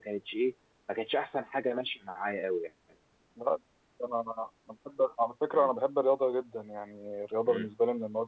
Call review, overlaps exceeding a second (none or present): none